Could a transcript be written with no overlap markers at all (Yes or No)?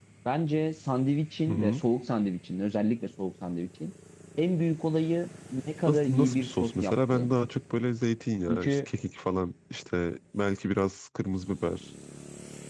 No